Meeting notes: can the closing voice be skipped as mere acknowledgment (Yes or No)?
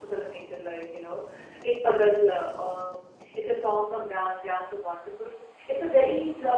Yes